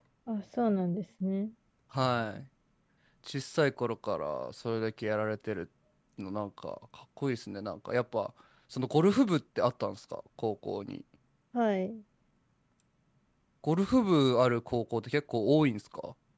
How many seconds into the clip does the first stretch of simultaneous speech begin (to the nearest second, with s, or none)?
none